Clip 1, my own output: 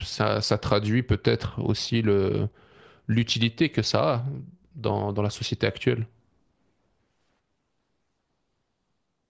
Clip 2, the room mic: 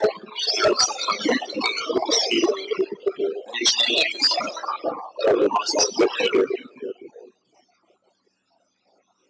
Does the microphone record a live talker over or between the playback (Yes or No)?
No